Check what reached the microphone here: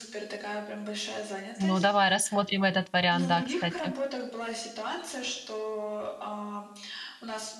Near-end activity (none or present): present